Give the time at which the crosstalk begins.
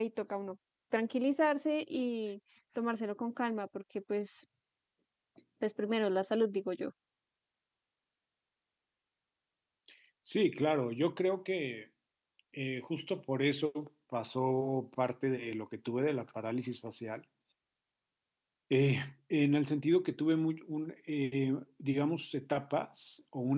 none

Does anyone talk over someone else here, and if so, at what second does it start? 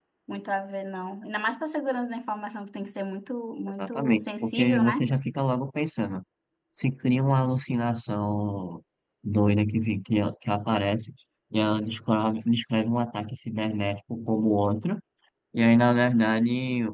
4 s

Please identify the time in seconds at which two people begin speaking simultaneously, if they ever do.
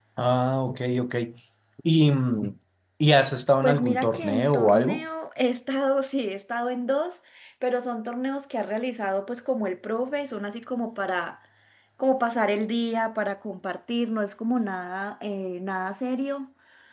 4 s

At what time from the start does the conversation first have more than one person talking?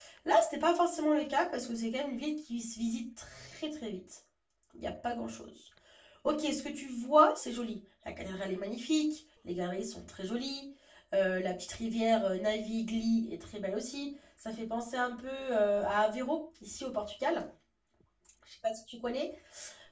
none

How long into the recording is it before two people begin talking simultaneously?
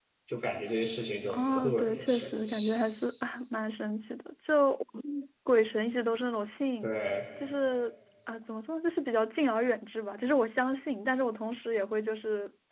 1 s

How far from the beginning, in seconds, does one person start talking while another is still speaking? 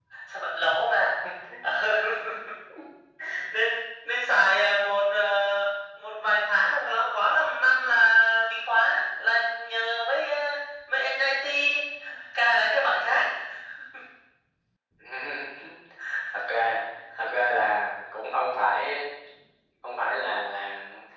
none

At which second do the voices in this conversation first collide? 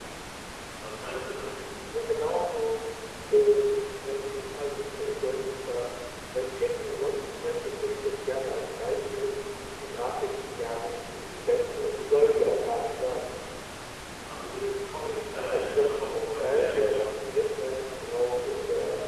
15 s

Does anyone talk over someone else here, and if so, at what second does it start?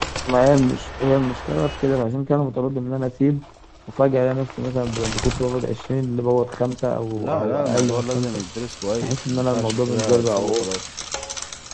7 s

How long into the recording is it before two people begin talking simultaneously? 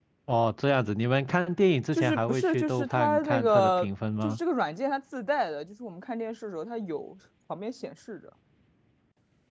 2 s

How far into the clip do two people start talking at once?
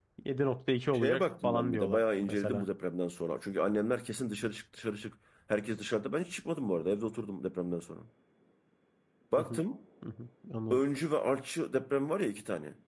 1 s

